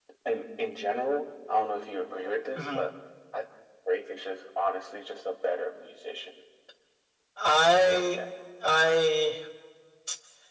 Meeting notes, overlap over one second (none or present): none